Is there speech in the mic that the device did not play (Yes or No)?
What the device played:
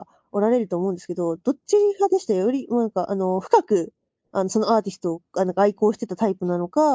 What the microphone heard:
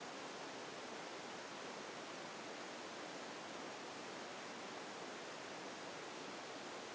No